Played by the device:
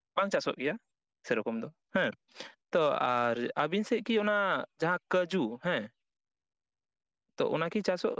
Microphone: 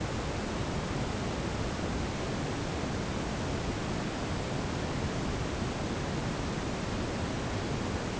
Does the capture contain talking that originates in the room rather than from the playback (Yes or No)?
No